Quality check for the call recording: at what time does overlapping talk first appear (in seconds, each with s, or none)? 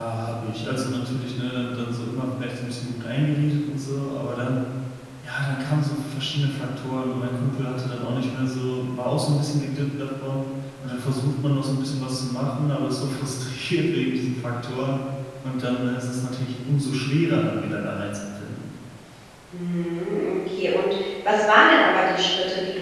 none